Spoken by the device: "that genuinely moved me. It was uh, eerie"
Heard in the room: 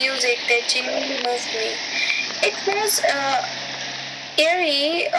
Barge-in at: none

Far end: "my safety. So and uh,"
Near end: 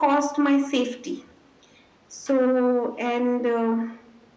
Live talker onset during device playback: none

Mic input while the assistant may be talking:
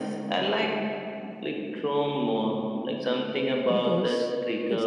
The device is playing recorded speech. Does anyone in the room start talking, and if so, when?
4 s

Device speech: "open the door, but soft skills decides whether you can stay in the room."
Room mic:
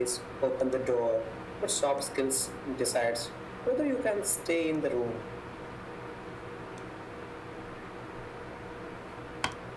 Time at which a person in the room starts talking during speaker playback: none

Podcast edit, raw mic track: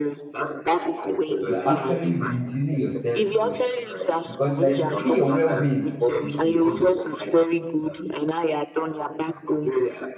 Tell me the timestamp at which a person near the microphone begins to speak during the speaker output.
1 s

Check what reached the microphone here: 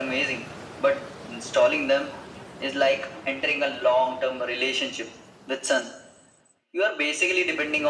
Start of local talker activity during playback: none

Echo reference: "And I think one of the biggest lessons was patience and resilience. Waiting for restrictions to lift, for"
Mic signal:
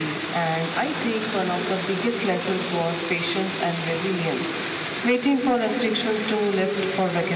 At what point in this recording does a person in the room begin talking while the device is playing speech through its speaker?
none

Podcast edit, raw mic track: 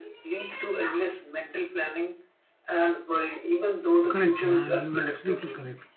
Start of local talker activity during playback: 4 s

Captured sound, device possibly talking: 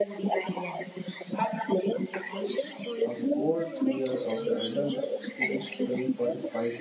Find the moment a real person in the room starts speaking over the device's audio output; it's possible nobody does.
3 s

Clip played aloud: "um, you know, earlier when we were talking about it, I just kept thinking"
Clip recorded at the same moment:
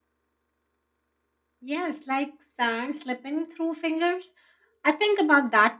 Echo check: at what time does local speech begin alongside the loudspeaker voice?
2 s

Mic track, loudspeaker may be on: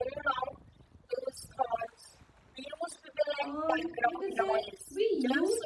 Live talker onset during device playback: 3 s

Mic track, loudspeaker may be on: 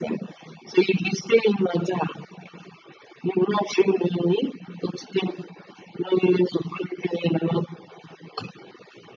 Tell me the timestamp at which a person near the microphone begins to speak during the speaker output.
none

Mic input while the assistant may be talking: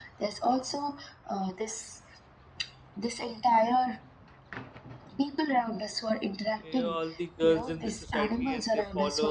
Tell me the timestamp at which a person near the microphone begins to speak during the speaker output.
7 s

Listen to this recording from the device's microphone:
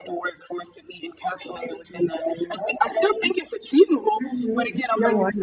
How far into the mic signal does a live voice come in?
4 s

